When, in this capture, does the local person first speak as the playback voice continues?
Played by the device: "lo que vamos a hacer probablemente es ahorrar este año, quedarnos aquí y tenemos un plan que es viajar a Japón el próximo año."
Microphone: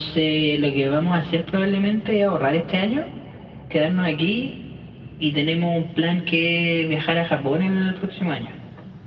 none

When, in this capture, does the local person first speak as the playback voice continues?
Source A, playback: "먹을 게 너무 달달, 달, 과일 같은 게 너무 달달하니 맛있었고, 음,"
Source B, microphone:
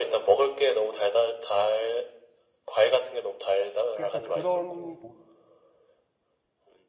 3.9 s

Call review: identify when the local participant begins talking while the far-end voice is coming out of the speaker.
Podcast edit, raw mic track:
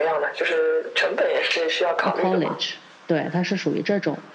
2.0 s

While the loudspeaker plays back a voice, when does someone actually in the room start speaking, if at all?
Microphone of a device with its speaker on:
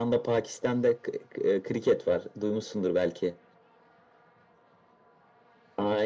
none

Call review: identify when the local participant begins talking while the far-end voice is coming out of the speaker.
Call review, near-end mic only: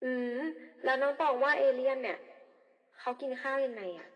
none

